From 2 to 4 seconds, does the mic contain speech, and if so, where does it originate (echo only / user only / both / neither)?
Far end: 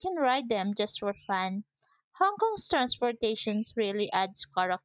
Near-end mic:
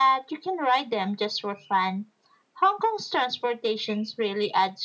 echo only